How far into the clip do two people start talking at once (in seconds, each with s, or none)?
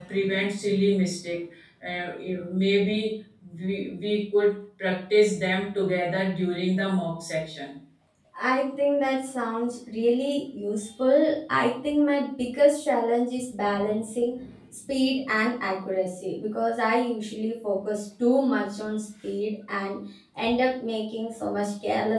none